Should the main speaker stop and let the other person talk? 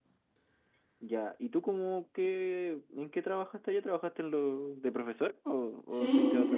Yes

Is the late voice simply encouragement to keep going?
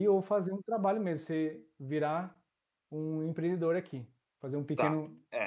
No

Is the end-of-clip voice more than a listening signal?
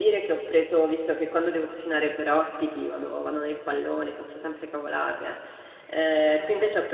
No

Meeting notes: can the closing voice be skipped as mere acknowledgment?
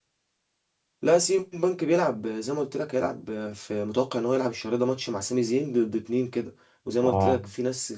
Yes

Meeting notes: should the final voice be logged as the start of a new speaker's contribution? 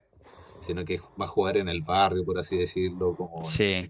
No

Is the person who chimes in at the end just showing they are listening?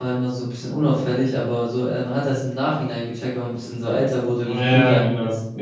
No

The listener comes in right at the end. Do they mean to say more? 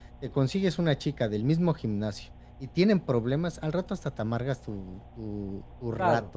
Yes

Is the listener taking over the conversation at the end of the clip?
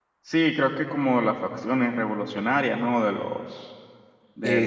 Yes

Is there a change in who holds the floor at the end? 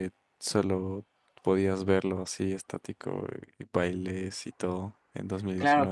Yes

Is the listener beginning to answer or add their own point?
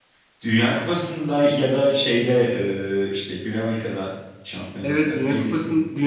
Yes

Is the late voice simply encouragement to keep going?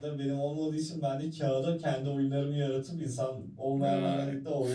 Yes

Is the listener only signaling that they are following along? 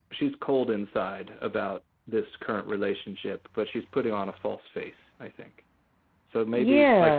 No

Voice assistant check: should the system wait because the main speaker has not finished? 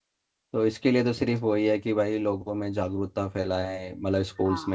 Yes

